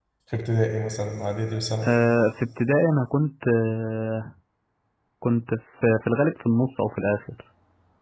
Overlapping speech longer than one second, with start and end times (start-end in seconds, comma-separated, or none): none